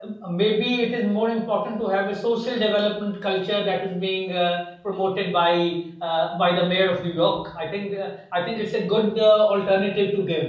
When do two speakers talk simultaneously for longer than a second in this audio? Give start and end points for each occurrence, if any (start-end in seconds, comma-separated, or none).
none